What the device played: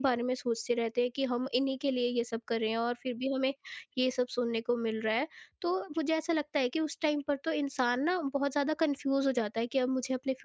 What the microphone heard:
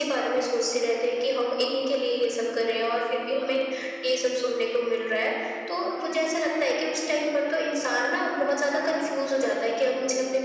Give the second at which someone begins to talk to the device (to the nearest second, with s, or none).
none